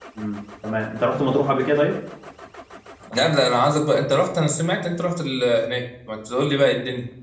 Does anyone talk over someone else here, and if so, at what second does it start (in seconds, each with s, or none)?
none